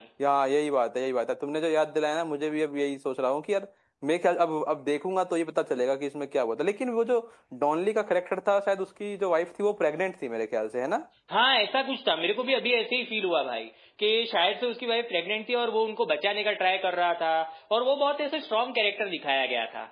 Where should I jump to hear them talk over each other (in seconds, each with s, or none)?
none